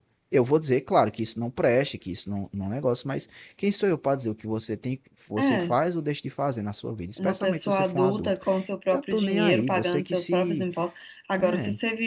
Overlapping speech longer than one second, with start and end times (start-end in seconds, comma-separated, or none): 7.2-8.4, 8.9-10.7